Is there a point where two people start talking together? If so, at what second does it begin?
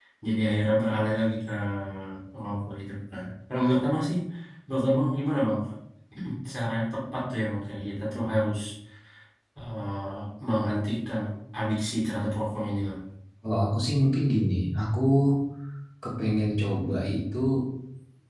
none

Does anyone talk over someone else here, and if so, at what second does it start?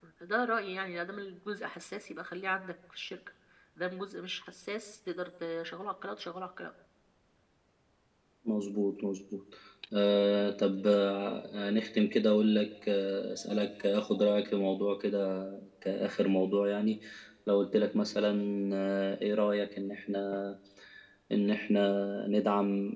none

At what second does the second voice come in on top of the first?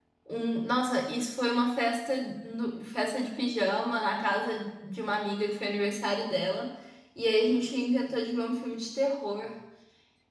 none

